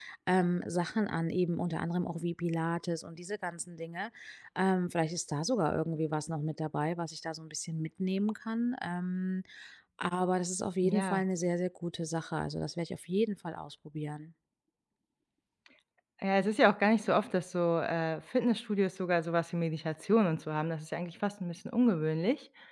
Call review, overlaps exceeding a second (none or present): none